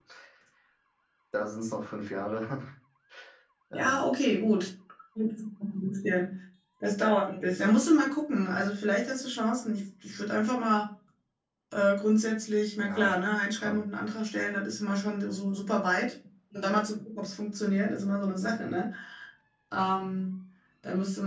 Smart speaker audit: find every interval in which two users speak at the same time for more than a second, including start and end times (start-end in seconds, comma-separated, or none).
none